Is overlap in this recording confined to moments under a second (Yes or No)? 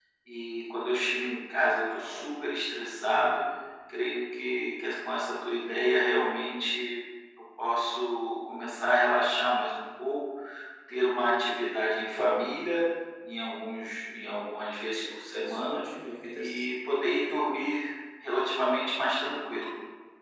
Yes